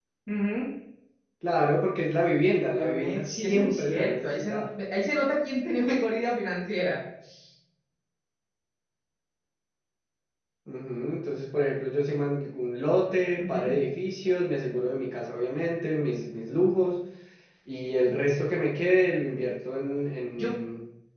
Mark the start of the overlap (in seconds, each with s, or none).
2.6 s